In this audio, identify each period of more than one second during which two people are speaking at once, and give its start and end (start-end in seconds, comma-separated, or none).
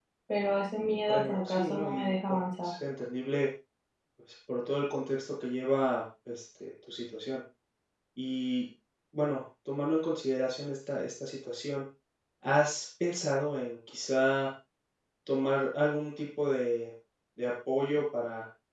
1.1-2.7